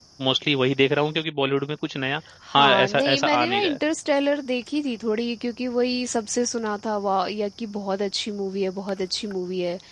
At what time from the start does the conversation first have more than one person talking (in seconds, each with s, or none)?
2.5 s